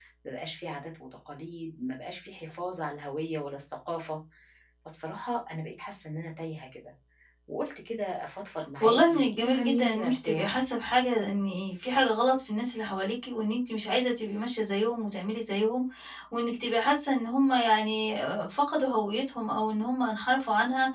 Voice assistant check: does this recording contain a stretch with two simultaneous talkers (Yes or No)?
Yes